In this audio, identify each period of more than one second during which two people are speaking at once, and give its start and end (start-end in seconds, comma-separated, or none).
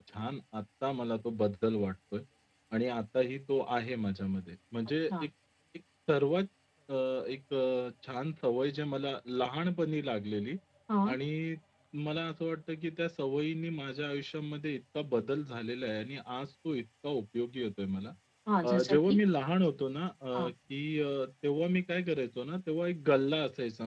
none